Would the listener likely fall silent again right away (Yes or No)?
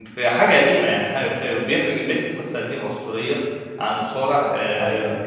Yes